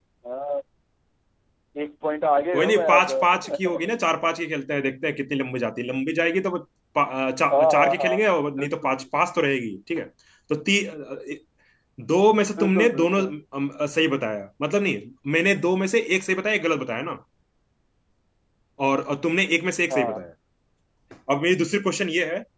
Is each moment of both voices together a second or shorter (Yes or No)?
No